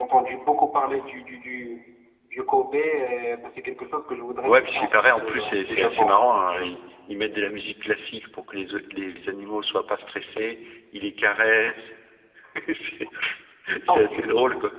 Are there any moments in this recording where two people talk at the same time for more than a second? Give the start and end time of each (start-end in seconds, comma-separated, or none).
4.5-6.2